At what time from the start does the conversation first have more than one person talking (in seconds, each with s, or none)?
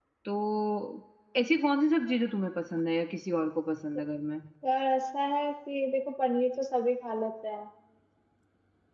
none